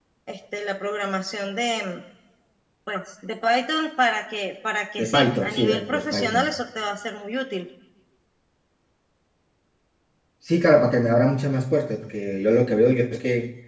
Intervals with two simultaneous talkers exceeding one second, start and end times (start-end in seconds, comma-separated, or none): 5.0-6.5